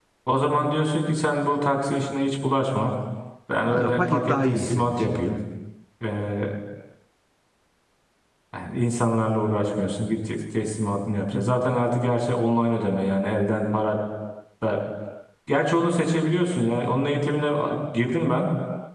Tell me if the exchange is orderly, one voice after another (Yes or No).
No